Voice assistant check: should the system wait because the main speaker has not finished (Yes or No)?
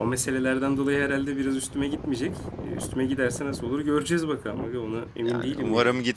No